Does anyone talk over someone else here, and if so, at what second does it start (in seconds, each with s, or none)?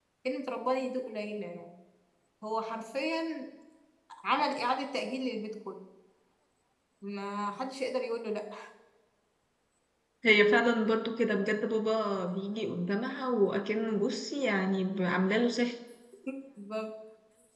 none